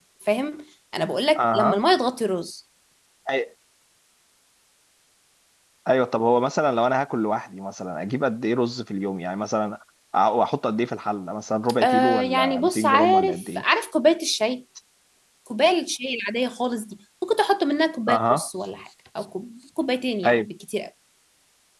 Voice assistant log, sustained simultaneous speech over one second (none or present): present